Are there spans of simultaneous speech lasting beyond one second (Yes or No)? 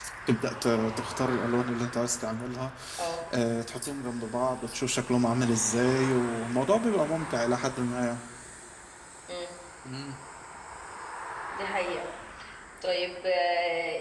No